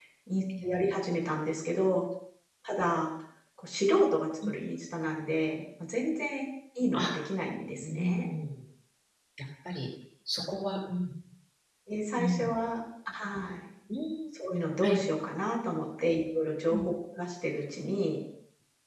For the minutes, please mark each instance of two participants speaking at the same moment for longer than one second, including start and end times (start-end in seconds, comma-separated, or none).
none